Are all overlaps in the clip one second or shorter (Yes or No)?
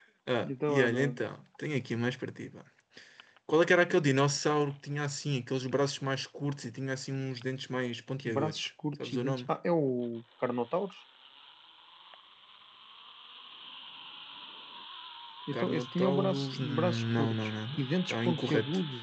No